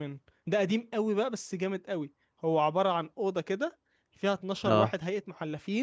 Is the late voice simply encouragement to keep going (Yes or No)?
Yes